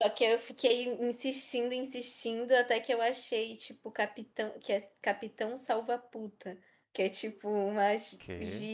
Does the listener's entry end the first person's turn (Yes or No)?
No